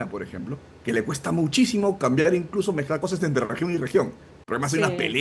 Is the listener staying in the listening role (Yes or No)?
No